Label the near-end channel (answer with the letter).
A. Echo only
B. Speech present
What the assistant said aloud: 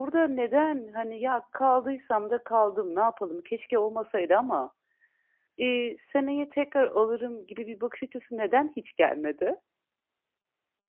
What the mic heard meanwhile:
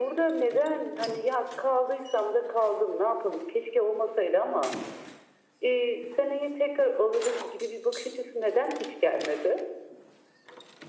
A